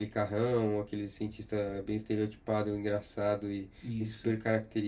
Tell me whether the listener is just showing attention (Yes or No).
Yes